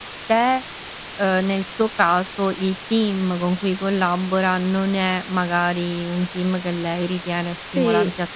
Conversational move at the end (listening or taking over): listening